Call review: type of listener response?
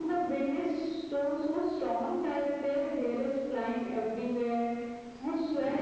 listening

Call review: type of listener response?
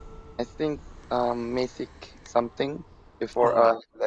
listening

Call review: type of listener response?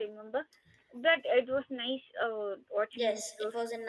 taking over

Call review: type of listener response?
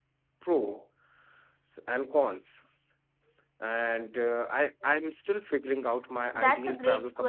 taking over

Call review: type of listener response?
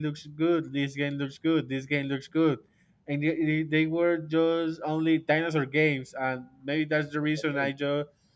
listening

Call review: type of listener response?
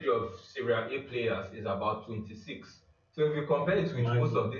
listening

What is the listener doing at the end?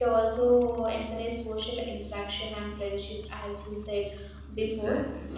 listening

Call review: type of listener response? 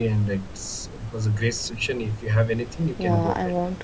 taking over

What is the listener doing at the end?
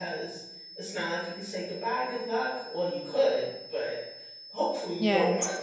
listening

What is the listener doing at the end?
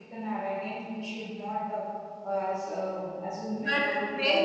taking over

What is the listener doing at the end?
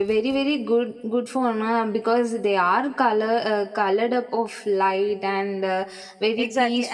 taking over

